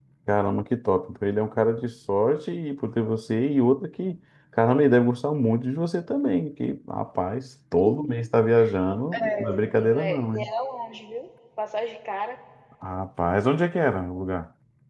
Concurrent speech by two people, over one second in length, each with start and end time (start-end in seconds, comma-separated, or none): 9.1-10.5